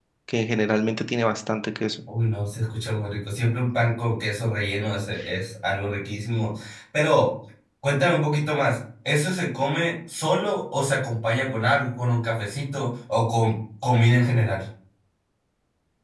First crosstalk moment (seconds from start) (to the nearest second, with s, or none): none